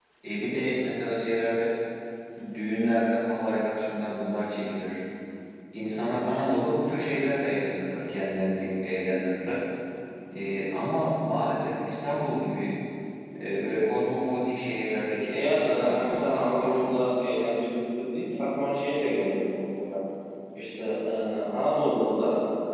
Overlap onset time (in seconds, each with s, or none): 15.3 s